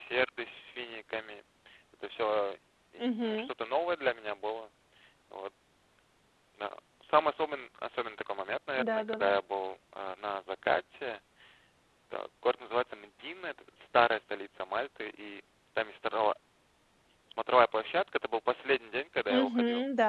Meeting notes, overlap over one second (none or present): none